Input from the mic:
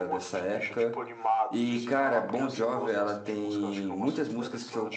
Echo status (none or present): present